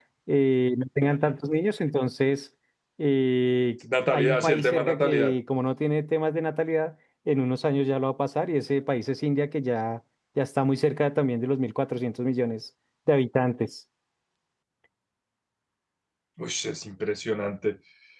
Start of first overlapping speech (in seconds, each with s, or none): 4.1 s